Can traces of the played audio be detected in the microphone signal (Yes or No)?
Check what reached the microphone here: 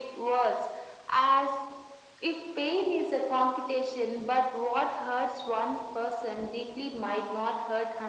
Yes